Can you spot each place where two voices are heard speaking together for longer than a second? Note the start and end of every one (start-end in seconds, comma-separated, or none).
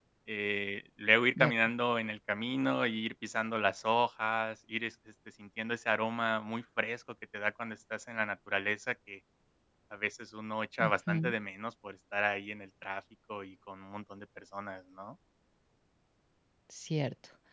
none